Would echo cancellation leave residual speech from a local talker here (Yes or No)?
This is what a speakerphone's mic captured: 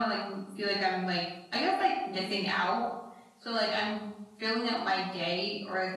No